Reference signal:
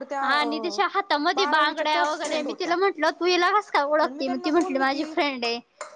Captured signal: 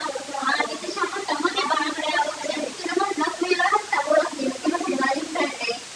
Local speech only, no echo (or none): none